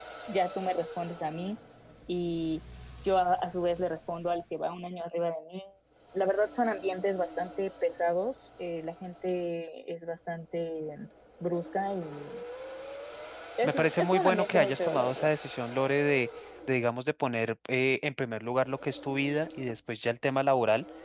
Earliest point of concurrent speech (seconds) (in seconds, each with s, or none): 13.6 s